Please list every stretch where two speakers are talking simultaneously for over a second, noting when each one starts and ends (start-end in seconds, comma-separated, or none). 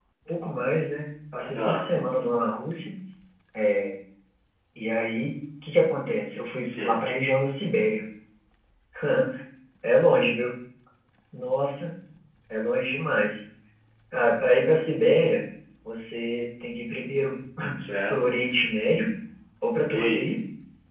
none